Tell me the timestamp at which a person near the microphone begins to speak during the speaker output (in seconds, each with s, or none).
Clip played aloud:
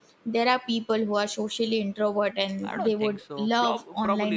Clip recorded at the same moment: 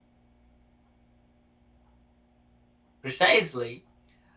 3.0 s